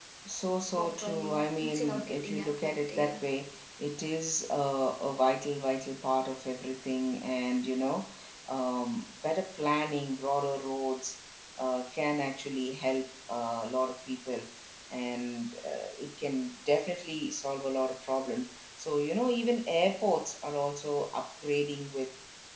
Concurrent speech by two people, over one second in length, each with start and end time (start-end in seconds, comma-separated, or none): 0.8-3.2